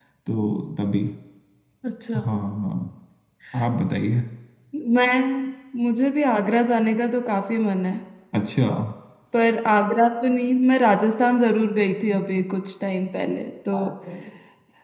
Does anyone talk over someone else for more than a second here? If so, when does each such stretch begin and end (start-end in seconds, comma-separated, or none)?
none